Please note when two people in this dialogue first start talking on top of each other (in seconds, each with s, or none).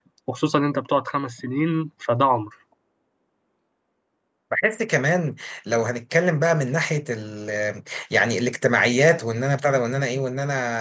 none